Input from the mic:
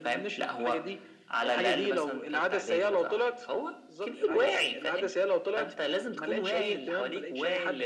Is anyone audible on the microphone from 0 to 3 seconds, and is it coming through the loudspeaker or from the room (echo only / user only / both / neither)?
echo only